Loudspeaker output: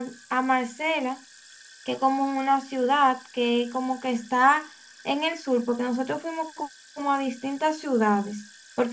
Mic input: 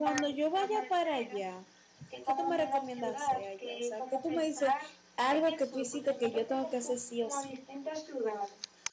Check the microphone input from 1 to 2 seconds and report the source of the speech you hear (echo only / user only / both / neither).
both